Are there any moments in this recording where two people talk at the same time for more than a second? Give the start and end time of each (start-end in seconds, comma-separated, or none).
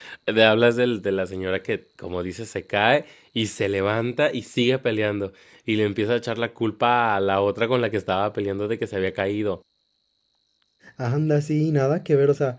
none